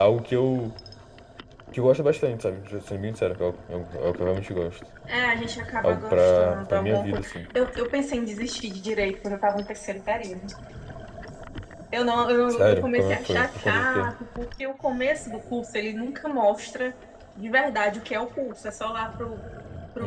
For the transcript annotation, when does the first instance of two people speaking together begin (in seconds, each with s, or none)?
5.8 s